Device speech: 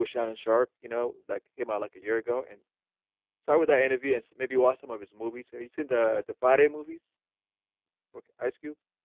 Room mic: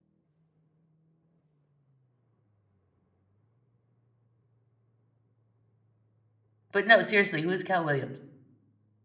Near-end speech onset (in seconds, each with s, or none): 6.7 s